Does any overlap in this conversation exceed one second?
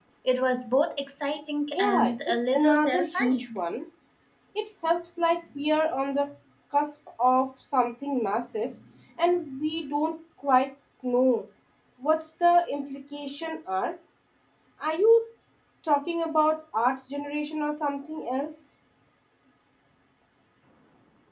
Yes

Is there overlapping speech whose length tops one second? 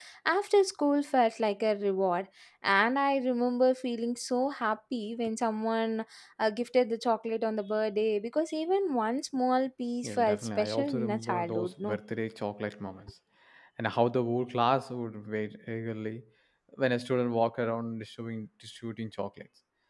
Yes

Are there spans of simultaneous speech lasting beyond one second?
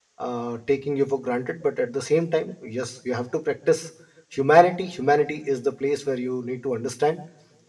No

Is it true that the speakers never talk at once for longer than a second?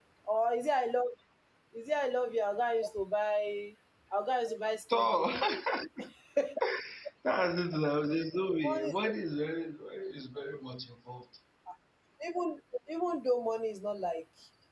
Yes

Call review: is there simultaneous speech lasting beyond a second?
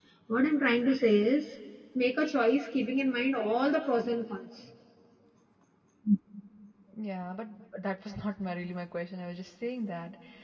No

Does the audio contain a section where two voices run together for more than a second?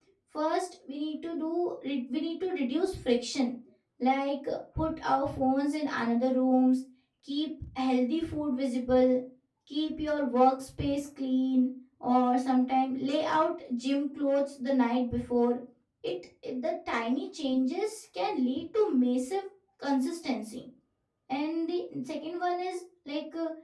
No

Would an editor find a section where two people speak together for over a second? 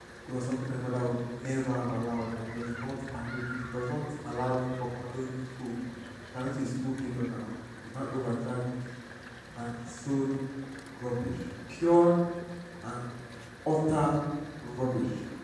No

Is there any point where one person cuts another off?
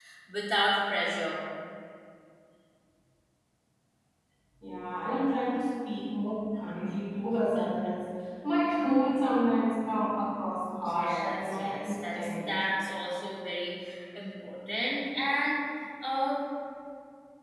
Yes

